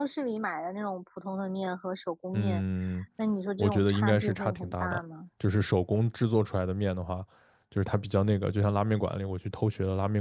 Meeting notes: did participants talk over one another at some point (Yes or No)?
Yes